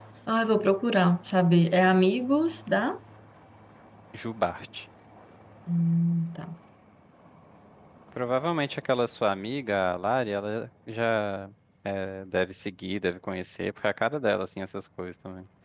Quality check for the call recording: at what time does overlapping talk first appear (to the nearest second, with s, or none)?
none